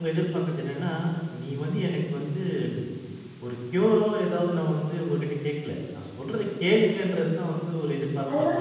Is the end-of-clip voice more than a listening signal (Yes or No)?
Yes